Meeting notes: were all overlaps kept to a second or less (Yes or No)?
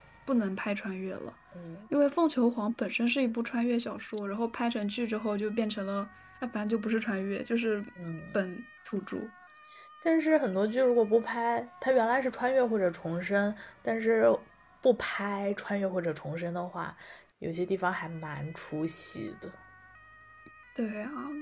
Yes